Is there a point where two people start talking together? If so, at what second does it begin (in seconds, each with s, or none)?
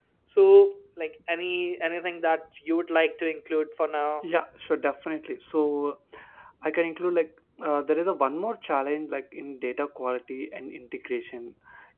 none